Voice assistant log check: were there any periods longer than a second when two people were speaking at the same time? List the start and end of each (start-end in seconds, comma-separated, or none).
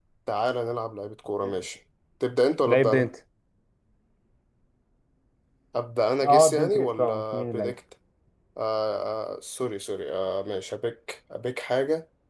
6.2-7.7